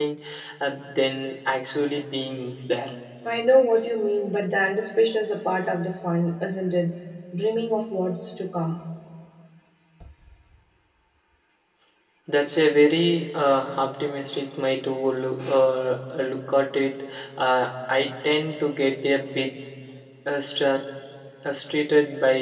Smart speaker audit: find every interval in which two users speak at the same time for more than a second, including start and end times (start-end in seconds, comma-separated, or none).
none